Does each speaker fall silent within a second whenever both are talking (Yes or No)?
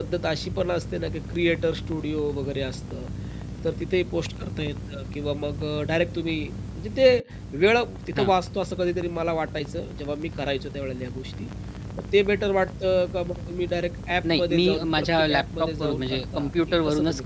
No